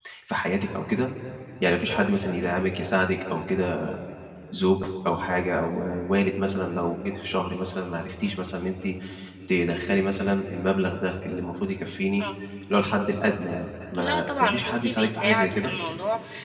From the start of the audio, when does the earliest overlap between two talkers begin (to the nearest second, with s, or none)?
14 s